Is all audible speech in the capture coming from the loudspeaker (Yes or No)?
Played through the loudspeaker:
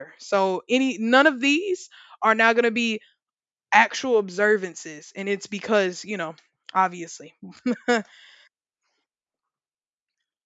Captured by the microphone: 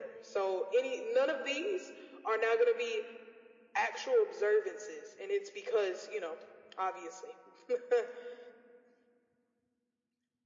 Yes